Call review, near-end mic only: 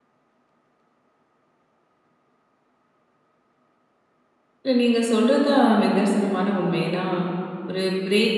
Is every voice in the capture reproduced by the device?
No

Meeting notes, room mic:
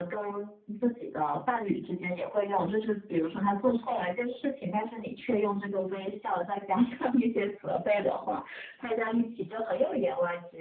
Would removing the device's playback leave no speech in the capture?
Yes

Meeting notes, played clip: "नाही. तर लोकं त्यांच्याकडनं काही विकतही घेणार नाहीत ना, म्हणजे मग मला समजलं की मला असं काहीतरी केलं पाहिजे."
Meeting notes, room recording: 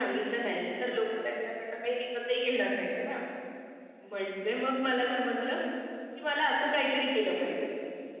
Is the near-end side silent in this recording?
Yes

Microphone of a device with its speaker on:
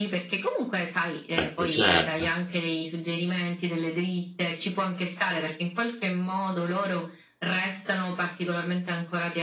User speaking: Yes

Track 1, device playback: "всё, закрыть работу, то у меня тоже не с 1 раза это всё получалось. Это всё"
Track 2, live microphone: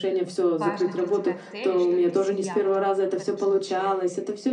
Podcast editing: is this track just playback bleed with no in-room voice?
No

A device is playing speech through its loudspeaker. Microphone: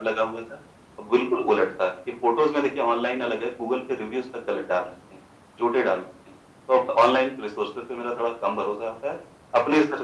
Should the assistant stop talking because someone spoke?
No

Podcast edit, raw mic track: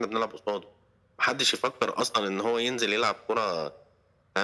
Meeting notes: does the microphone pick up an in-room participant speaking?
No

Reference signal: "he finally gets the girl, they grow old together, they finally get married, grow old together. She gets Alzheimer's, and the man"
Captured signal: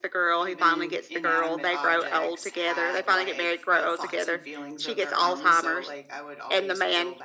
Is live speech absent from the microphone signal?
No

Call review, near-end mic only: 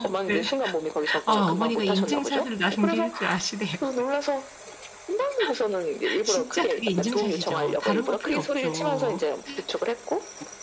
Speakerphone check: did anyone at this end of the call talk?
Yes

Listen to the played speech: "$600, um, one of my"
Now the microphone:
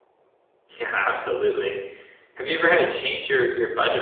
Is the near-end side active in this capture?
Yes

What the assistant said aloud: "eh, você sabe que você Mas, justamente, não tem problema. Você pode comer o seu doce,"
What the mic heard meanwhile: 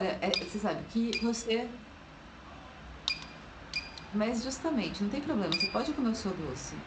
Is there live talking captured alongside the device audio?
No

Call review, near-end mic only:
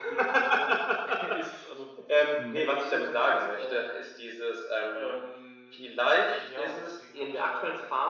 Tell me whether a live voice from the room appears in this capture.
Yes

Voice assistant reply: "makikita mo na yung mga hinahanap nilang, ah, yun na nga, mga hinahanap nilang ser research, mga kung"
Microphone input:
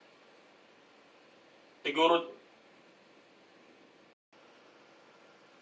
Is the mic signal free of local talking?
No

